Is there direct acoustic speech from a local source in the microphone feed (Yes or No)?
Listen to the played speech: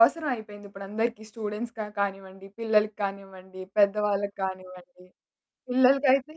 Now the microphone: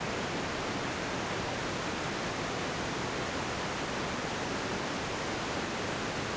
No